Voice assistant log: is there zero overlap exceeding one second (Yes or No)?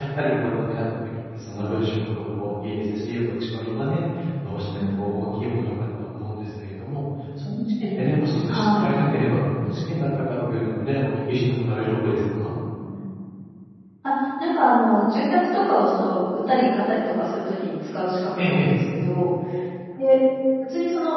Yes